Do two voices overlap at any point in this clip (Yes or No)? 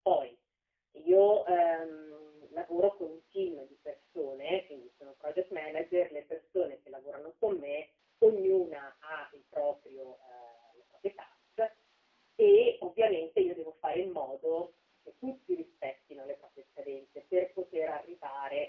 No